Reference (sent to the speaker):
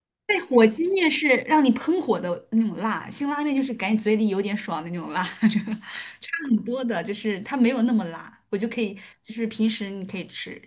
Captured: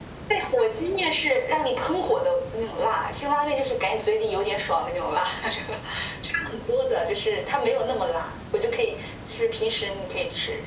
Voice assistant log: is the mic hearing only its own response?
Yes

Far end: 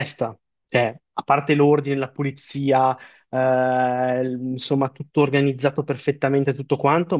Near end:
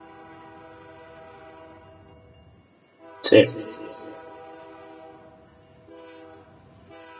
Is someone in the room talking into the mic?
Yes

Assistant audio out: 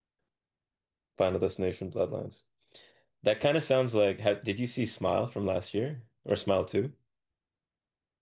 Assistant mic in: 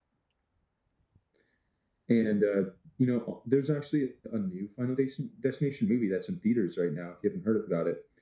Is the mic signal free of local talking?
No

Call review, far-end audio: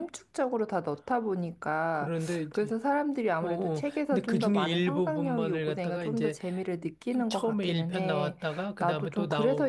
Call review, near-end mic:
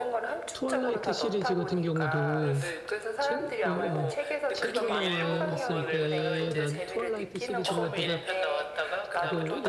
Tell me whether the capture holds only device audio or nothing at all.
No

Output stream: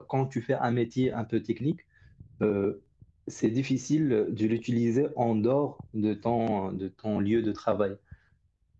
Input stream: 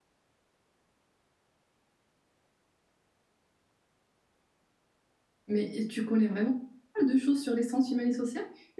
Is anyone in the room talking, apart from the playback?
Yes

